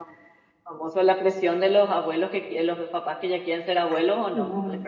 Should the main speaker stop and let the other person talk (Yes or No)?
Yes